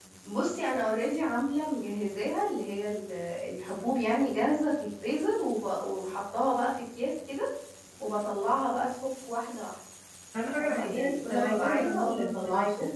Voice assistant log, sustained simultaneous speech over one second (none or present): present